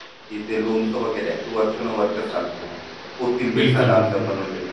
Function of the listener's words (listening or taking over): listening